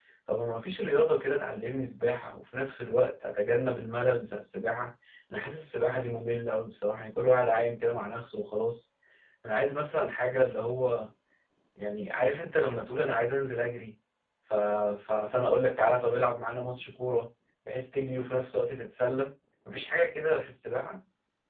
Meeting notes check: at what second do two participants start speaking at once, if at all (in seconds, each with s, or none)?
none